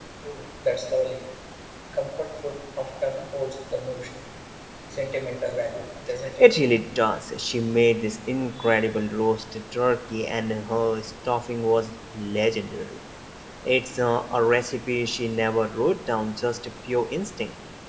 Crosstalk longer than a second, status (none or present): none